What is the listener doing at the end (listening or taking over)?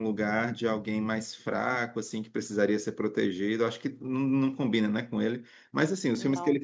listening